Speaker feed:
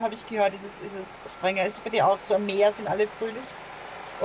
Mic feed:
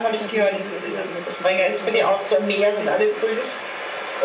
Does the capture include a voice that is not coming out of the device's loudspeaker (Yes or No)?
Yes